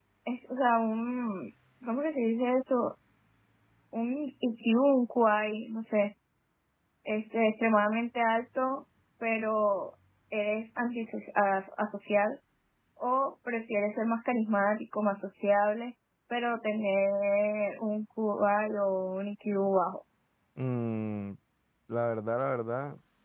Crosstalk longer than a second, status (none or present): none